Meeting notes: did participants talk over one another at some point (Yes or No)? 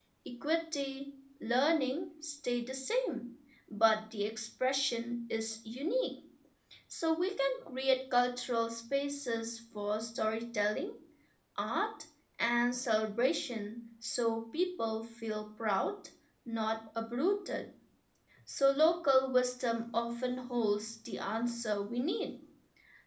No